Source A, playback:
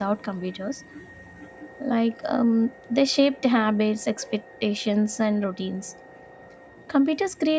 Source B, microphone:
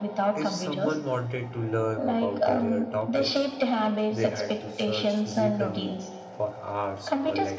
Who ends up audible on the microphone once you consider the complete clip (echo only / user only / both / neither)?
both